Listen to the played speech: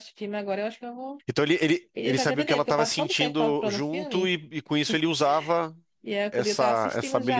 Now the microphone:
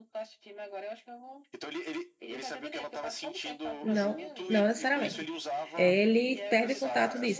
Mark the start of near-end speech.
4 s

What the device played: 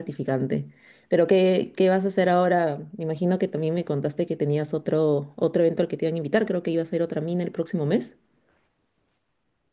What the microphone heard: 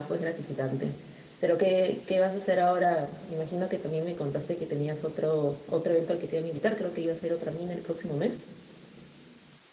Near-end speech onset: none

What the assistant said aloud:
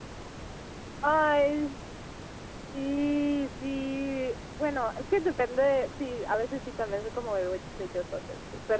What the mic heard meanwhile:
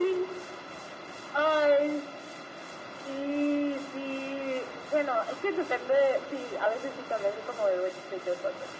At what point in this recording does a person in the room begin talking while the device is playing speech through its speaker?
none

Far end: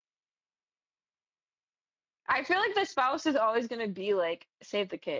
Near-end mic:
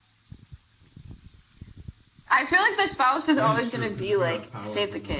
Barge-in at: 3 s

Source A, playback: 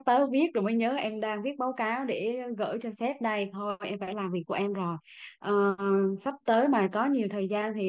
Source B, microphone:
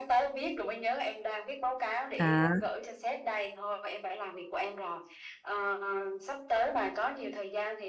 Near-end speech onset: 2 s

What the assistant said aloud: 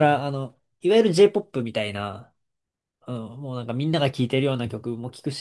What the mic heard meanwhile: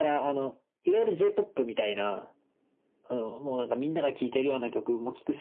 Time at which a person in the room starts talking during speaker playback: none

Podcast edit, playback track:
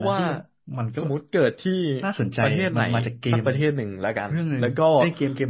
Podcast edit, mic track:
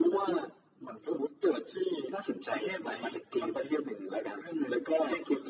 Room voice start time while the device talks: none

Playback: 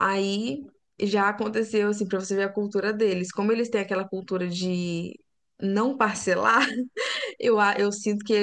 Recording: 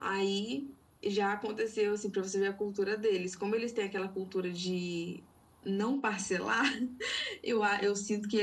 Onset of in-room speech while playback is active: none

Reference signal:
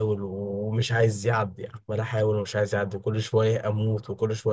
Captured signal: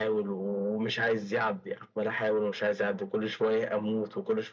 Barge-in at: none

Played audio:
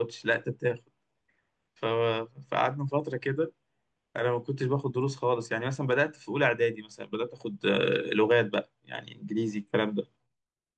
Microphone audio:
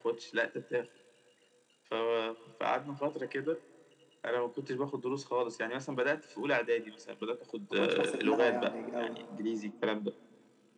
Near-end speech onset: 8 s

